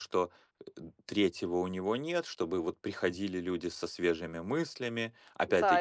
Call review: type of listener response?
taking over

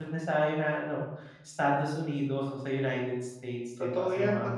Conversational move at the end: taking over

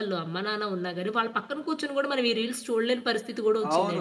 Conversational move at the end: taking over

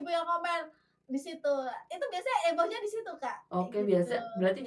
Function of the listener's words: taking over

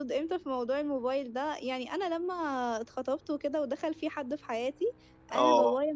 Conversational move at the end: listening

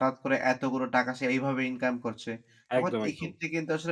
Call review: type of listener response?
listening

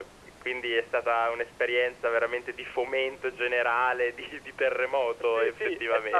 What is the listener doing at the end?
taking over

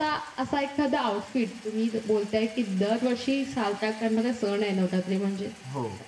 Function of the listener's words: listening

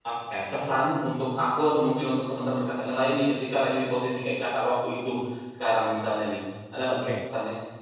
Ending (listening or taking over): taking over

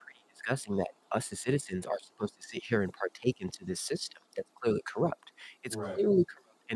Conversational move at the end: listening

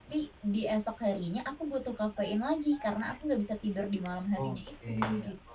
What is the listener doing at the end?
taking over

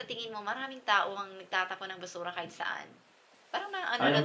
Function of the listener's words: taking over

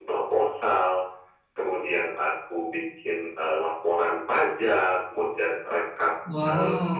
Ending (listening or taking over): listening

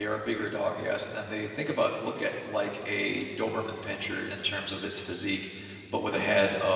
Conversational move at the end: listening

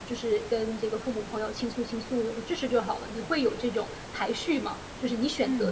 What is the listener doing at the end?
taking over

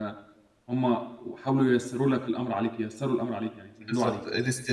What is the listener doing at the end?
taking over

